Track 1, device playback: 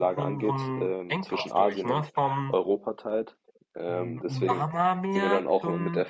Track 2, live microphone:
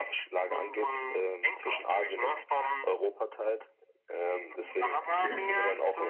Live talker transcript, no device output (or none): Okay.